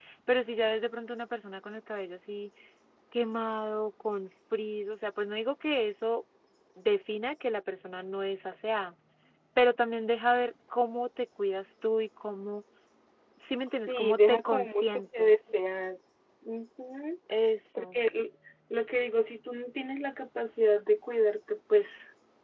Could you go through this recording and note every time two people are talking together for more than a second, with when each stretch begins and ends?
13.9-15.3

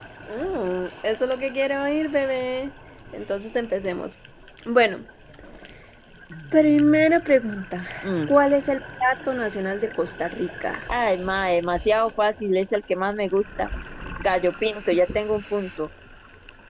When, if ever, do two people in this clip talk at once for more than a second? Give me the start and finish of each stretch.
none

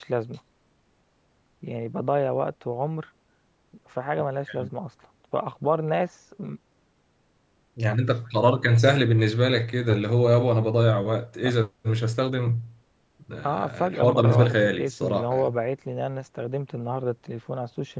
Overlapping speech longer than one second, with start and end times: 13.4-15.6

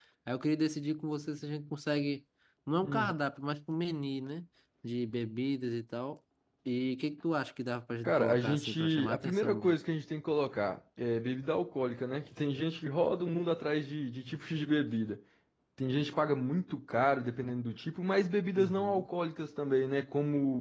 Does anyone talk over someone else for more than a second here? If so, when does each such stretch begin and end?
8.0-9.7

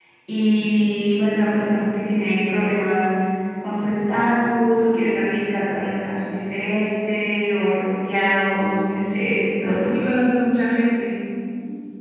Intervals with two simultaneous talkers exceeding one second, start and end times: none

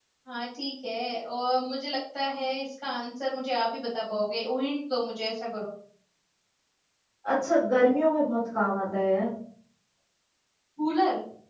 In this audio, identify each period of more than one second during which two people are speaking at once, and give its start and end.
none

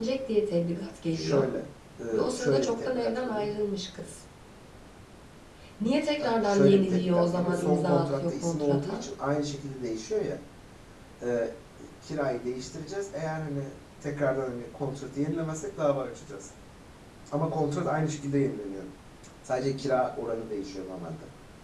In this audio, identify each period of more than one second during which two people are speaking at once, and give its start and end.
2.1-3.5, 6.2-9.0

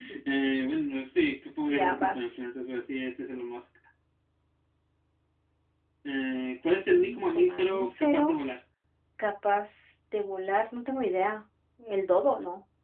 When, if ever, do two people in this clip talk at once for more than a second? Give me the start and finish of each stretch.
6.7-8.3

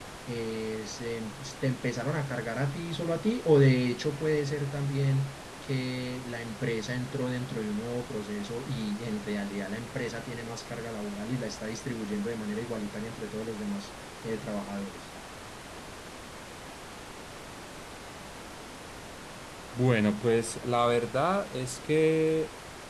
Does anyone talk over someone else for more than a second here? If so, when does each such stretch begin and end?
none

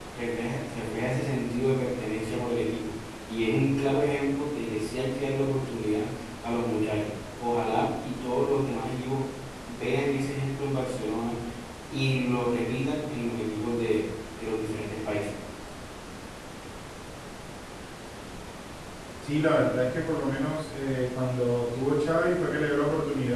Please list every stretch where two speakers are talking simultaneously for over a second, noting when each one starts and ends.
none

